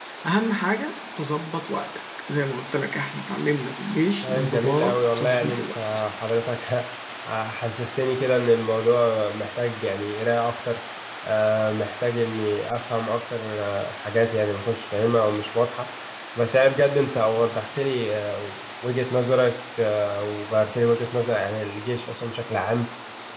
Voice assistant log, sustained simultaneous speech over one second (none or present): present